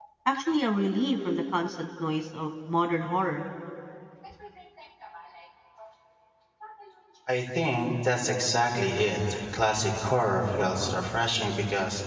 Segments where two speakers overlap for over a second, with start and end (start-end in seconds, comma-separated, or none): none